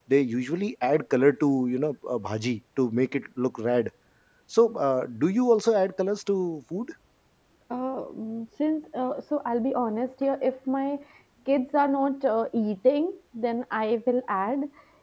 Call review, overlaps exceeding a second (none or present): none